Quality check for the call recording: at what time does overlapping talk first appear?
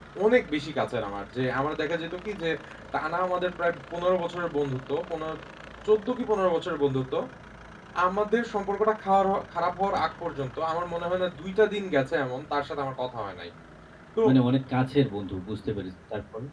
none

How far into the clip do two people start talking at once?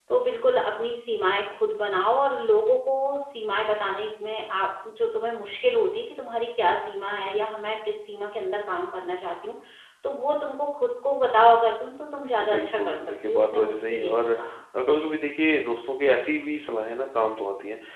12.5 s

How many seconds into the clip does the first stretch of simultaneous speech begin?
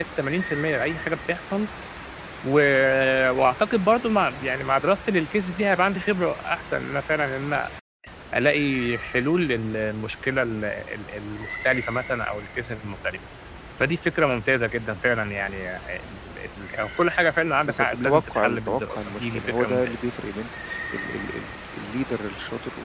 17.7 s

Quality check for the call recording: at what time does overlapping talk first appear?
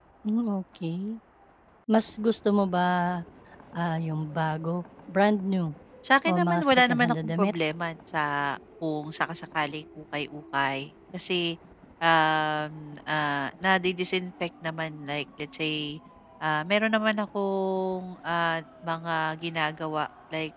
6.2 s

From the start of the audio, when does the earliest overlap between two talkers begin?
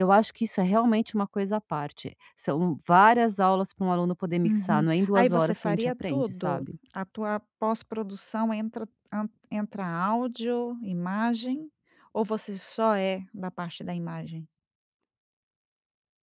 4.4 s

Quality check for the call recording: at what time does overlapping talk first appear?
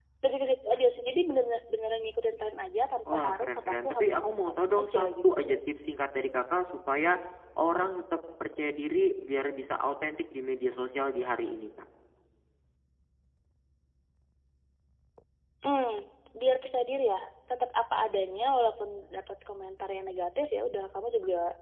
3.0 s

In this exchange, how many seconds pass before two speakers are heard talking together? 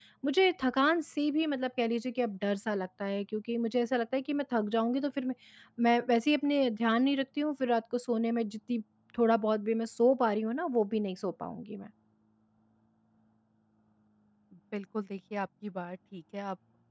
none

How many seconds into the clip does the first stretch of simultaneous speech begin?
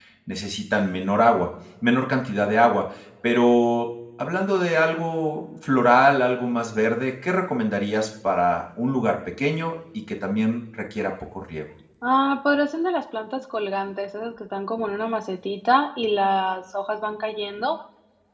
none

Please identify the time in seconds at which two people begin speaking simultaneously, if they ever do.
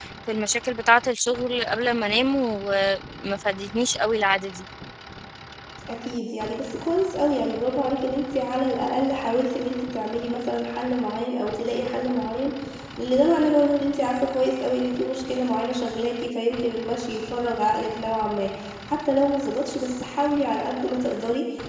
none

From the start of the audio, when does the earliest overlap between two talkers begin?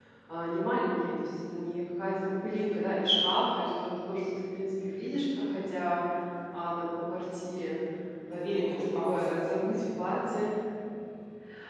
8.3 s

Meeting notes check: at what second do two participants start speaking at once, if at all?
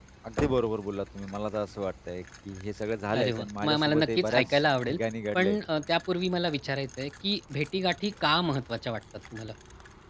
3.1 s

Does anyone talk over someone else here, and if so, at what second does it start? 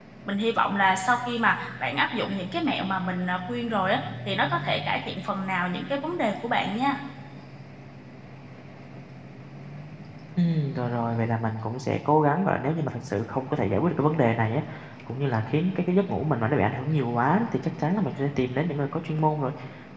none

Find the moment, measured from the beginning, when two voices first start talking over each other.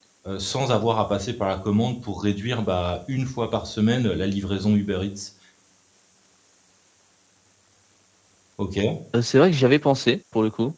none

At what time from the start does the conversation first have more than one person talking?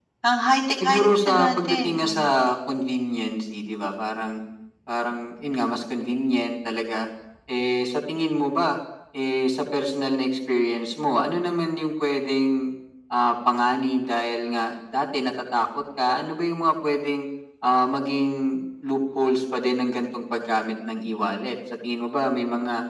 0.8 s

